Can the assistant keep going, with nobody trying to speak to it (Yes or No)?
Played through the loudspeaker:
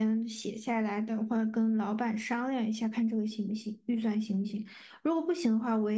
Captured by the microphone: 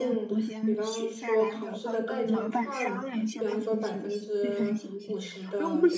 No